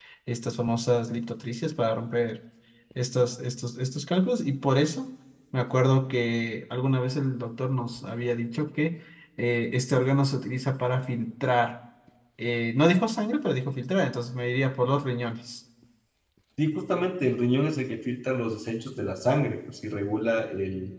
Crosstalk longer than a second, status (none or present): none